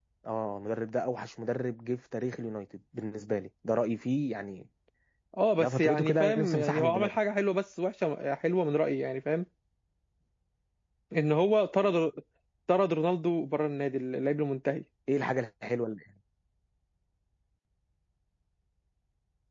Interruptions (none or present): present